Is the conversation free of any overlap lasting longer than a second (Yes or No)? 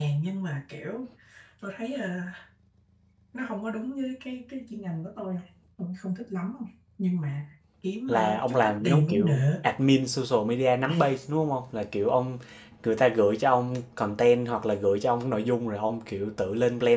No